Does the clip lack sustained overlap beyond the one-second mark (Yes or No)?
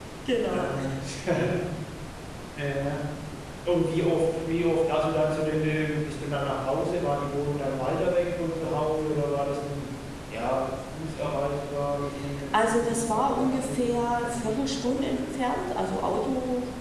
No